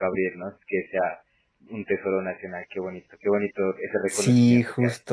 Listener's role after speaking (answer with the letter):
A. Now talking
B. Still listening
A